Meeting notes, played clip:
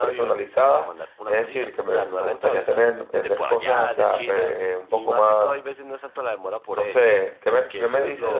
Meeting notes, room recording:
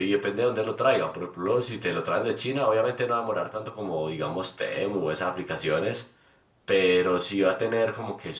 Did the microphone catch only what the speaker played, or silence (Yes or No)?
No